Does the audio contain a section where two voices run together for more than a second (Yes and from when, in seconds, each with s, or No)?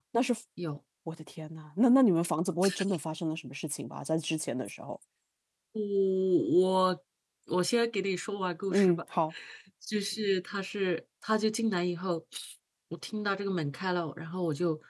No